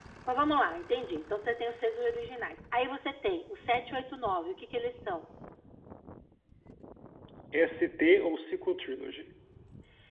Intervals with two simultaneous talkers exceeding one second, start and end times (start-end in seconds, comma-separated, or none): none